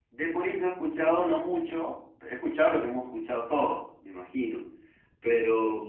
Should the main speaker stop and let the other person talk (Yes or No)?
No